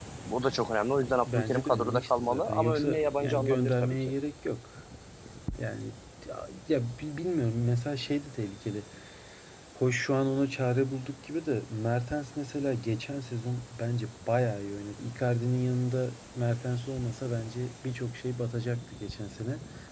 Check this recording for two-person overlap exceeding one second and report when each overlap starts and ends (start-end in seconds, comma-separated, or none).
1.3-4.0